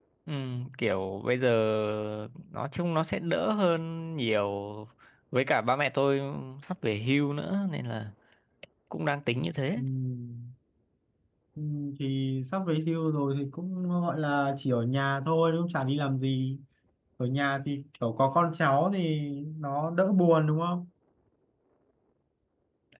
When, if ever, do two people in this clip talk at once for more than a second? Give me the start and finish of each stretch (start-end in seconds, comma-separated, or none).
none